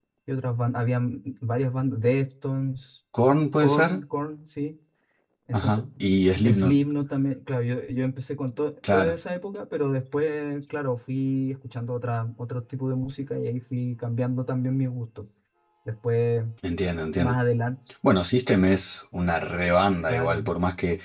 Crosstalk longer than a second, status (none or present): none